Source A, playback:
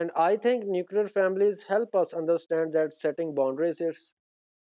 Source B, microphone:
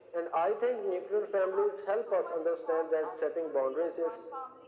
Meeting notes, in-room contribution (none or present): present